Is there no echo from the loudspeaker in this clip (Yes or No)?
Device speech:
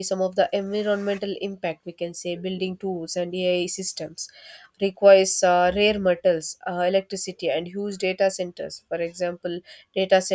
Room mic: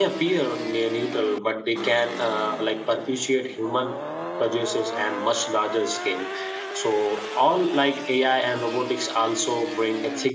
Yes